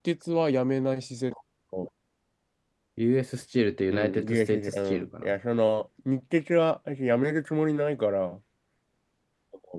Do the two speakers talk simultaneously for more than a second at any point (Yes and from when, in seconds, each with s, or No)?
Yes, from 3.9 s